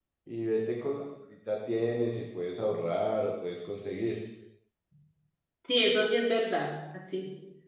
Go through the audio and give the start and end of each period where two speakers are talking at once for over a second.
none

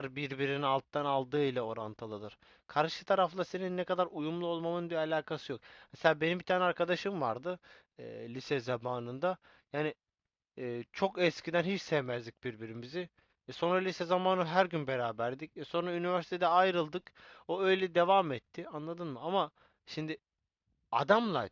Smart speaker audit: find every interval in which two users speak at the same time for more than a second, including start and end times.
none

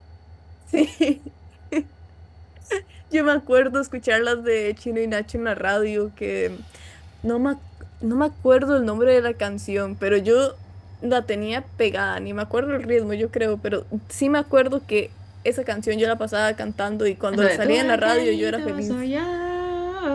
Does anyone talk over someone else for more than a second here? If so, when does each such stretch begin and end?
17.3-18.9

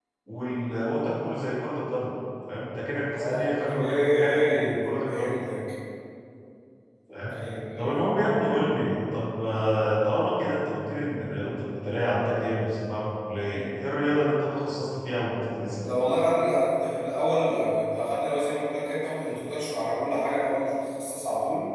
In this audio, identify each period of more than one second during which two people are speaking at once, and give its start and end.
3.1-5.4

